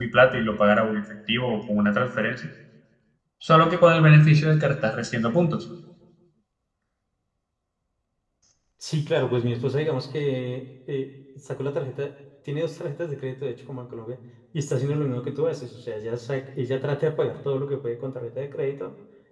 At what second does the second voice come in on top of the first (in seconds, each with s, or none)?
none